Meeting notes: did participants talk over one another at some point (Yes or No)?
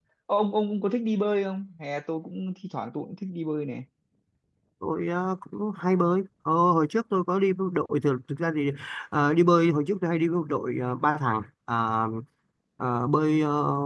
No